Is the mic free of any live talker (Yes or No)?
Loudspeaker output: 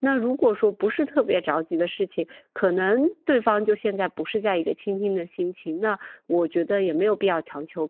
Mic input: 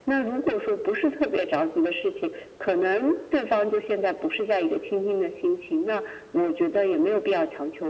Yes